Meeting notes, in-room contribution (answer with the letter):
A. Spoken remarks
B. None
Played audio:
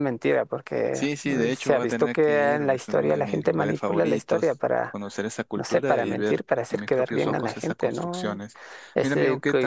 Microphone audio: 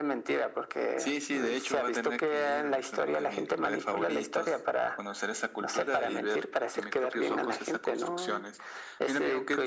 B